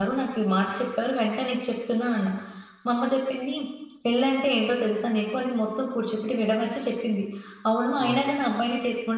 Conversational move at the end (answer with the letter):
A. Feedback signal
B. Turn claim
A